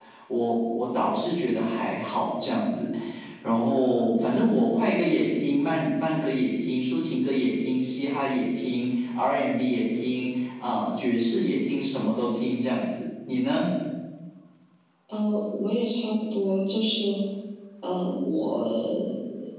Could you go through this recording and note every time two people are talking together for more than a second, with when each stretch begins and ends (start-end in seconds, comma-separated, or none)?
none